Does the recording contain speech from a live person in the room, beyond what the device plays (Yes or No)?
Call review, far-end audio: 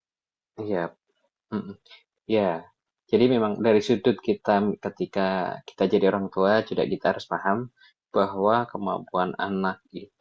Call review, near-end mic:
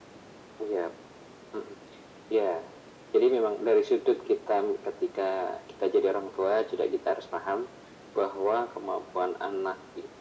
No